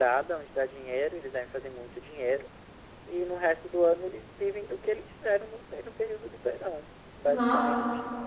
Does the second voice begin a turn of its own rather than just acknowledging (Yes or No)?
Yes